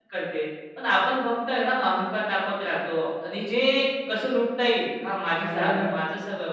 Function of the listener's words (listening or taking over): listening